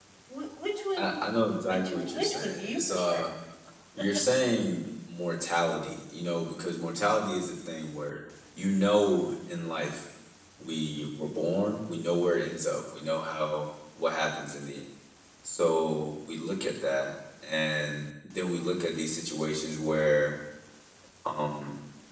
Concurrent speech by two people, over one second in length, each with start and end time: 1.7-3.2

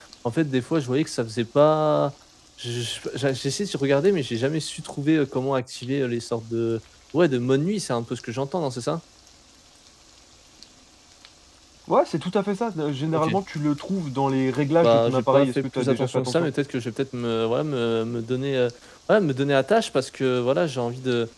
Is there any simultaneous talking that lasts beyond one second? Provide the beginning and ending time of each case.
14.8-16.5

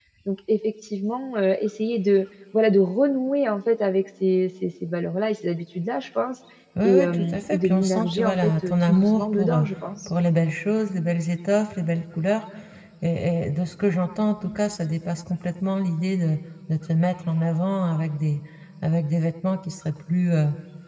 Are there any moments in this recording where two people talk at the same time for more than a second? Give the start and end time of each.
6.8-9.6

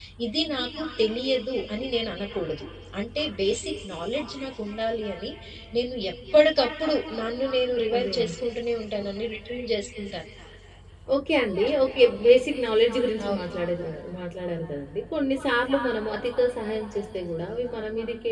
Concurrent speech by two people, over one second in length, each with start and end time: none

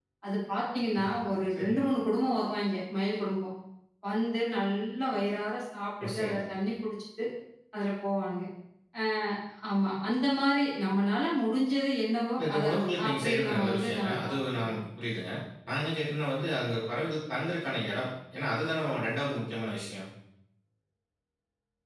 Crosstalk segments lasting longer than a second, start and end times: 12.4-14.8

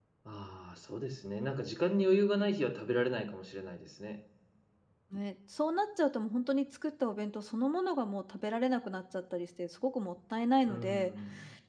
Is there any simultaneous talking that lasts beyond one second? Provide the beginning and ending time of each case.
none

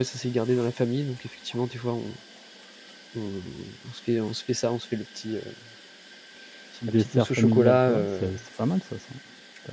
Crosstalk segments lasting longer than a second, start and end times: 6.9-8.3

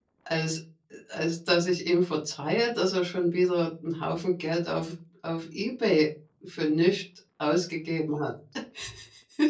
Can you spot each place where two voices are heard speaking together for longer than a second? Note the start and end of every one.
none

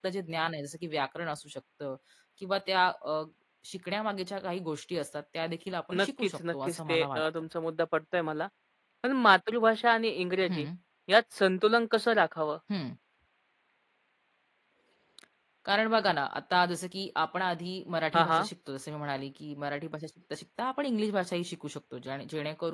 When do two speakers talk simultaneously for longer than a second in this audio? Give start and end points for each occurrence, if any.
6.0-7.2

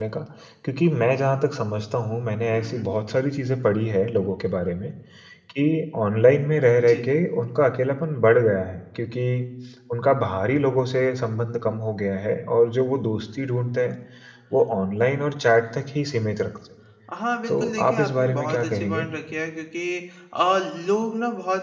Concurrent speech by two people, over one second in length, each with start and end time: 17.5-19.1

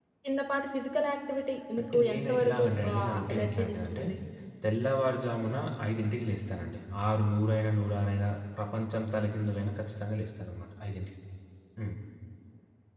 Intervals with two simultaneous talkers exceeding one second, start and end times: 1.8-4.0

